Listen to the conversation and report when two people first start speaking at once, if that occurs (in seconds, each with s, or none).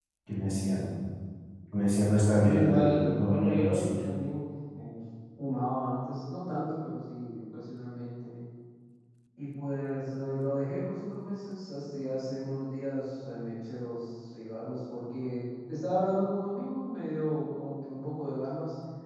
2.4 s